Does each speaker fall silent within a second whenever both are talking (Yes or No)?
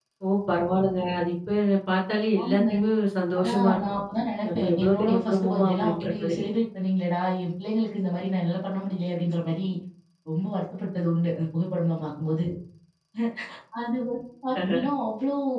No